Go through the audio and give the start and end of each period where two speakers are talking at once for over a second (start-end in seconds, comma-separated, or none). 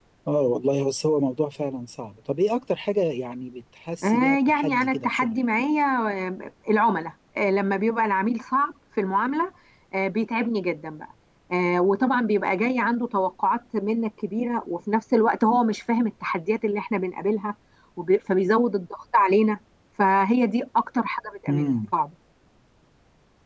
4.0-5.4